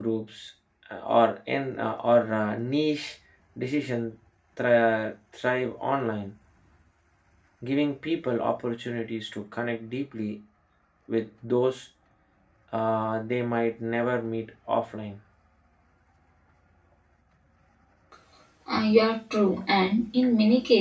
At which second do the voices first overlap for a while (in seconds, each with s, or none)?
none